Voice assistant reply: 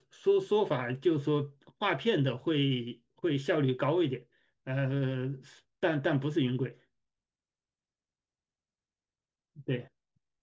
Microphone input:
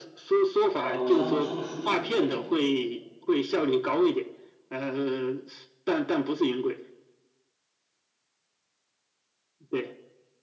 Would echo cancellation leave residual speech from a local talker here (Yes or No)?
Yes